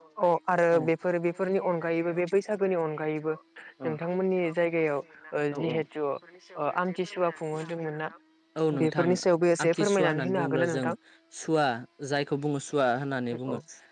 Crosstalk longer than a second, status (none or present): present